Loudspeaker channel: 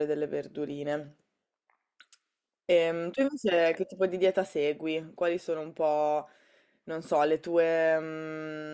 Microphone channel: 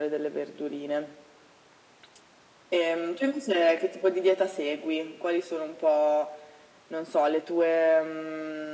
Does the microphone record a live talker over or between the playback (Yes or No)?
No